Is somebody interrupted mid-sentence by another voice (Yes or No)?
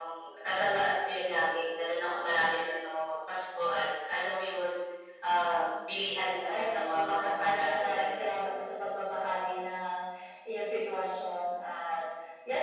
Yes